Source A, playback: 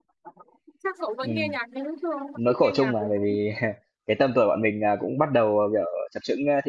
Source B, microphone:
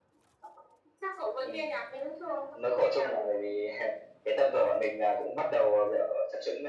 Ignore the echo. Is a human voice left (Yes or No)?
No